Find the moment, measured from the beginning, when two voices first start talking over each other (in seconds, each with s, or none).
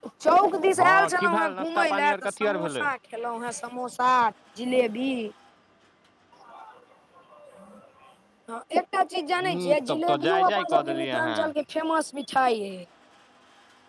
0.8 s